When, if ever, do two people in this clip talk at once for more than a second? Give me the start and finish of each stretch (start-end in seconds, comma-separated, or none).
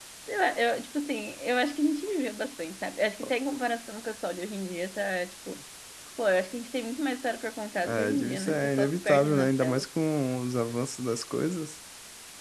7.9-9.8